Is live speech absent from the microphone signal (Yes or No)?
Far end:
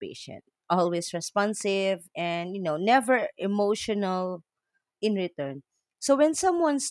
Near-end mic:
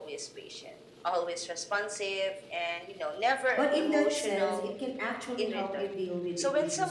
No